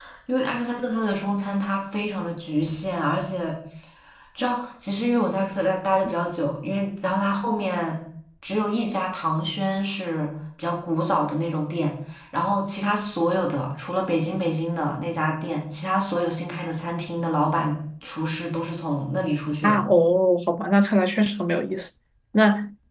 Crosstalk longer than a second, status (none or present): none